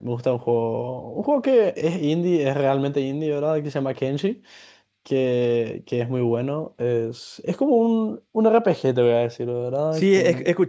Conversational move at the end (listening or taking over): taking over